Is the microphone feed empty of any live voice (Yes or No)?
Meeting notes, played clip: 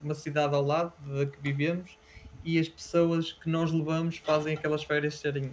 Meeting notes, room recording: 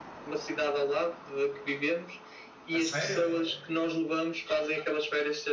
No